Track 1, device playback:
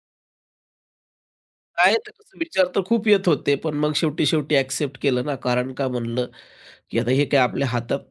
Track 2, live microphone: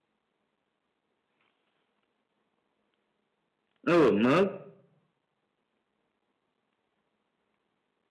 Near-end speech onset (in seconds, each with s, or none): 3.9 s